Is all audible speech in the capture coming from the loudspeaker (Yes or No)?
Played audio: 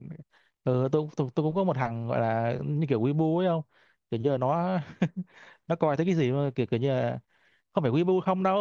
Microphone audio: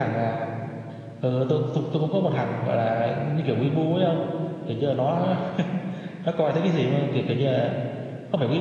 Yes